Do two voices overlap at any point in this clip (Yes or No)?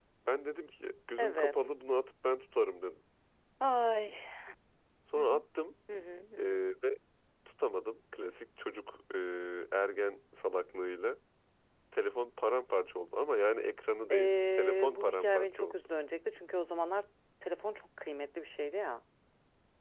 Yes